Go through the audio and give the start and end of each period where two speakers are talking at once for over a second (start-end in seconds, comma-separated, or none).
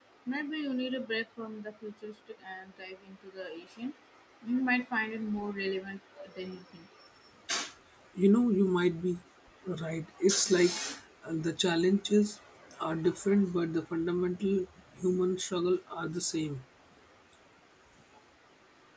none